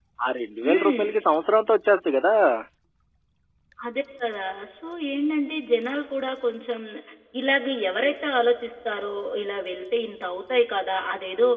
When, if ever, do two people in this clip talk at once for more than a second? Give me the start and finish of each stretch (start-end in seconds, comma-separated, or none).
none